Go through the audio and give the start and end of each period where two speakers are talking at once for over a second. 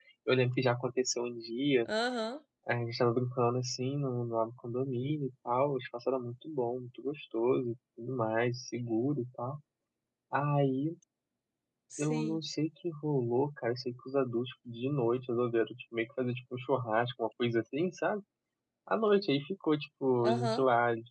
none

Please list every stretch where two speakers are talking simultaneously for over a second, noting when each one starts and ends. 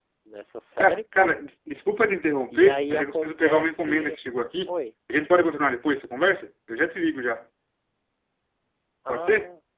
2.5-4.2

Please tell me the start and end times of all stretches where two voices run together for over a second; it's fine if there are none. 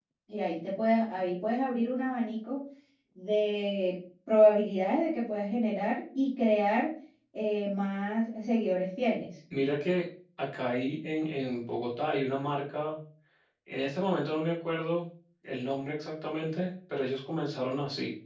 none

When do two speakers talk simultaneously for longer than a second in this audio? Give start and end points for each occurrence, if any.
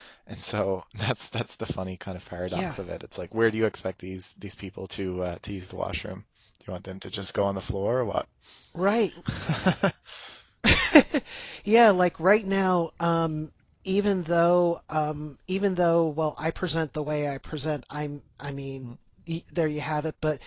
none

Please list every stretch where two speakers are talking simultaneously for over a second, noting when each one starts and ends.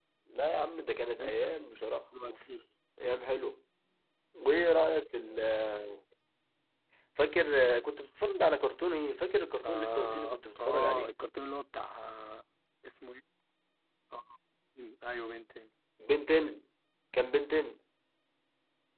9.6-11.1

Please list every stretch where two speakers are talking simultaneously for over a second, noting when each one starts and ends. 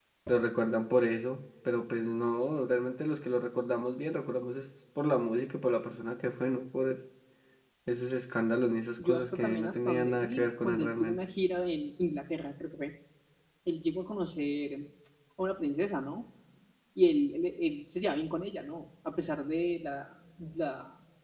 9.0-11.2

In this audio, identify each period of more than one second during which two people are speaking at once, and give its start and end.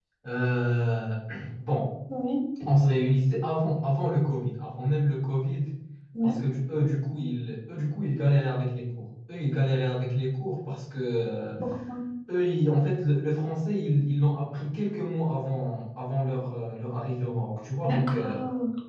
none

